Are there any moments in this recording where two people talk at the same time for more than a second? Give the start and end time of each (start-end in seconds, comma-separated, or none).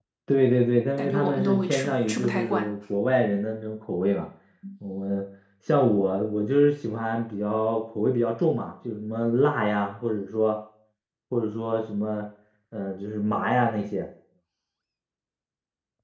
1.0-2.7